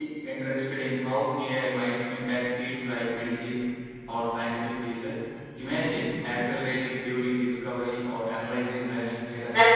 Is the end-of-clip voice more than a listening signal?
Yes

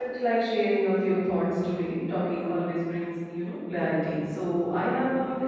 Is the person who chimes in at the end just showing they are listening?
Yes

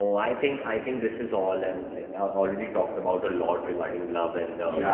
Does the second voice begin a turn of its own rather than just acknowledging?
Yes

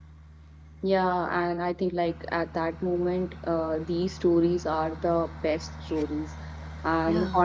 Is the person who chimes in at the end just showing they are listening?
Yes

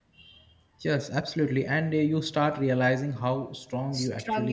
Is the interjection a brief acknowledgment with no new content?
No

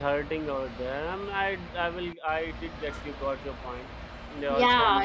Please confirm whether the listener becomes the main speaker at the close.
Yes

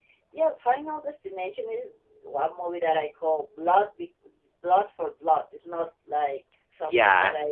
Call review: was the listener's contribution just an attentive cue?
Yes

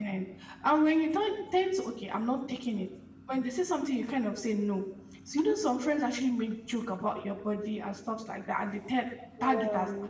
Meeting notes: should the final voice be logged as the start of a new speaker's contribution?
No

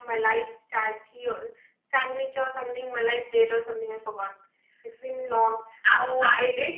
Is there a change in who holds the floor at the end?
Yes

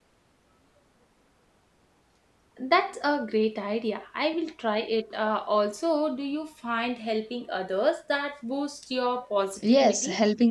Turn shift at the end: Yes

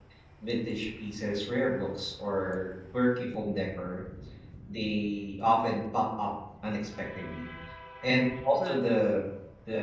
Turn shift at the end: No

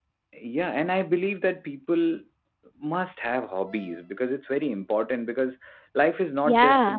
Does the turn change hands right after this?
No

